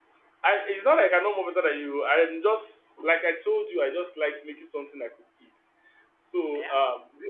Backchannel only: Yes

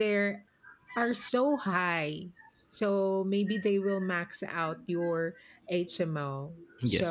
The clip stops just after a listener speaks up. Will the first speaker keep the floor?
Yes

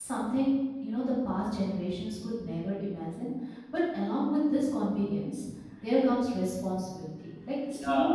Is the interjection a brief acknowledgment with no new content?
Yes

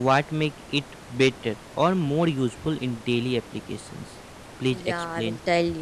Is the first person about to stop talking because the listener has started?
Yes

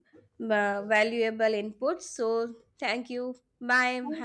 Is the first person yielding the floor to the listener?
Yes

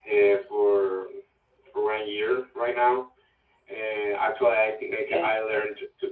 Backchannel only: Yes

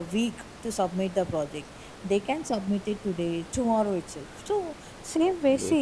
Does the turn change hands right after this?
No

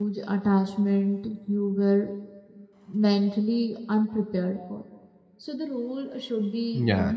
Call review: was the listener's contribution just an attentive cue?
Yes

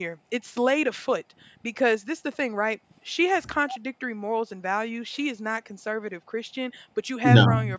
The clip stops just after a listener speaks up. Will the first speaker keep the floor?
Yes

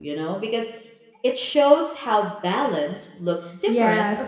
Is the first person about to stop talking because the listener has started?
Yes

